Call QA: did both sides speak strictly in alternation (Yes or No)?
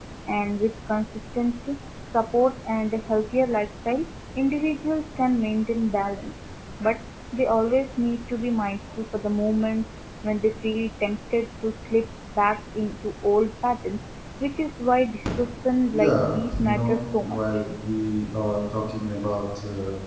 No